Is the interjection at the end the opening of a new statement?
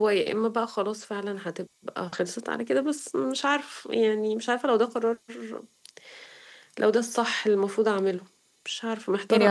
Yes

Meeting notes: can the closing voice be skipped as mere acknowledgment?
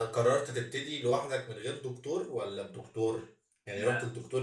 Yes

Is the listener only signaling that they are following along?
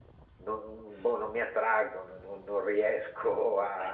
No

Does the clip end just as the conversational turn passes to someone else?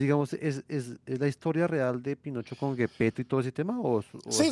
Yes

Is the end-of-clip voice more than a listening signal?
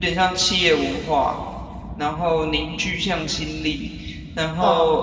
No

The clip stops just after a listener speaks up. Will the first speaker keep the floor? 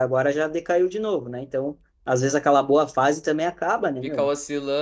No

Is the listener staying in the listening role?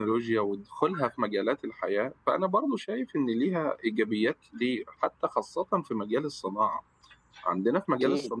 Yes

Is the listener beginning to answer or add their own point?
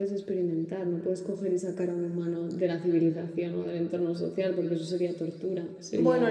Yes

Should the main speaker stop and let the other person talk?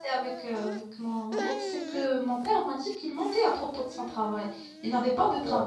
No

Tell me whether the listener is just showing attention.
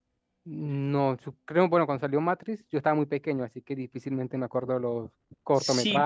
No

